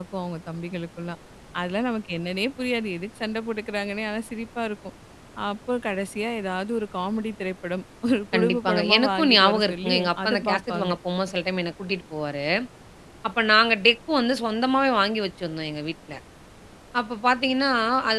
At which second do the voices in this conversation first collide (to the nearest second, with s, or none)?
8 s